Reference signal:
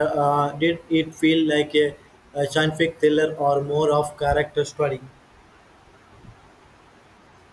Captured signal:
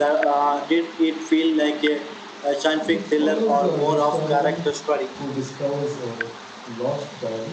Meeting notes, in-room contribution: present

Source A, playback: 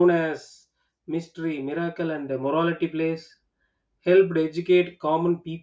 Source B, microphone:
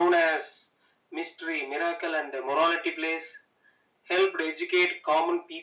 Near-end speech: none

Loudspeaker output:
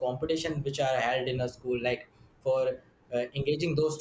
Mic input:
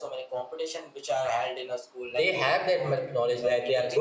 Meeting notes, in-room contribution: present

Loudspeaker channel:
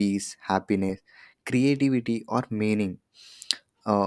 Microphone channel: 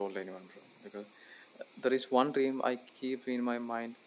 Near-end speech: present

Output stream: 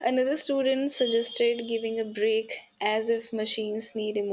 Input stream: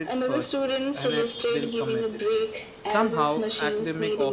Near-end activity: present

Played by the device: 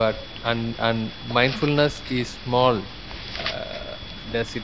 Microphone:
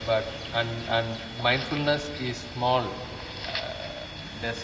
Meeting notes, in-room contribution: none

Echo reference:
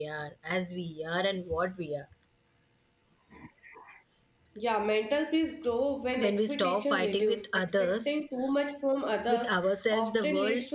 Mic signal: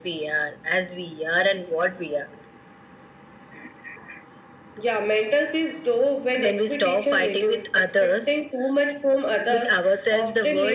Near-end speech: none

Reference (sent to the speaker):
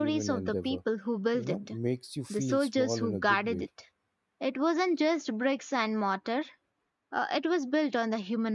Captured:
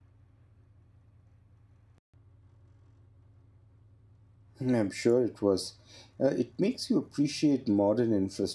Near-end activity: present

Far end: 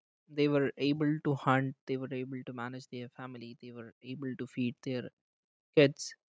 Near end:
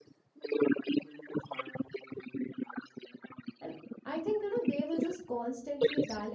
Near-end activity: present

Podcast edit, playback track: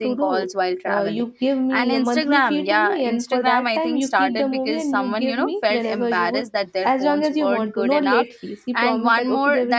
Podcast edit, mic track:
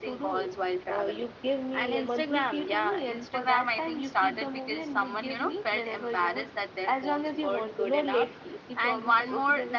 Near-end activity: none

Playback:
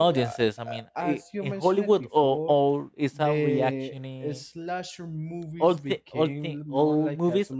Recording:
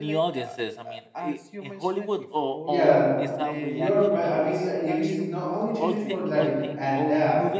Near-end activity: present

